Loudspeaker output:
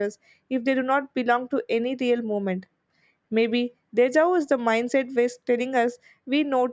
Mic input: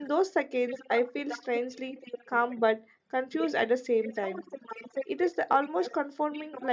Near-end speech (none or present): present